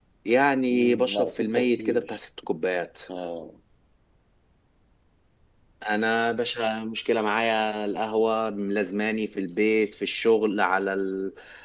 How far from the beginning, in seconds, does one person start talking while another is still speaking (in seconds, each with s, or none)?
0.7 s